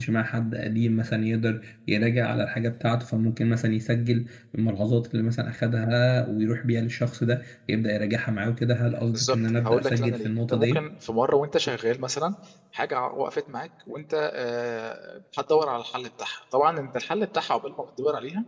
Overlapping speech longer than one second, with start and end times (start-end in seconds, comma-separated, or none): 9.1-10.8